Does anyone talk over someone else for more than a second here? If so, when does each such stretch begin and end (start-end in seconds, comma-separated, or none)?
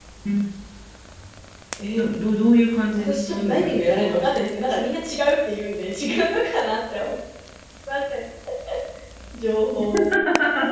2.9-4.2